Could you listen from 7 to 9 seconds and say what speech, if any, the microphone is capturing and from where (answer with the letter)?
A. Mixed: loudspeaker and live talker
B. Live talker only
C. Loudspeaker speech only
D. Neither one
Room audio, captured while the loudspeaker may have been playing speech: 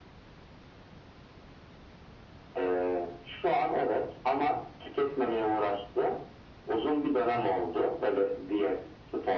C